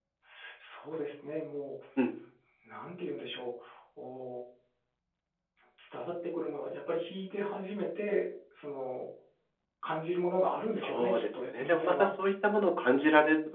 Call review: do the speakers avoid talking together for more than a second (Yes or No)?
No